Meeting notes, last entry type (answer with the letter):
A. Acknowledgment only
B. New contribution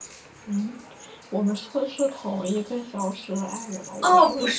B